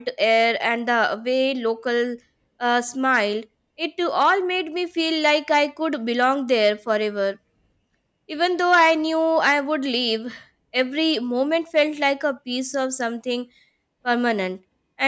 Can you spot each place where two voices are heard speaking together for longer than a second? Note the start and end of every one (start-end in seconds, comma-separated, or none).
none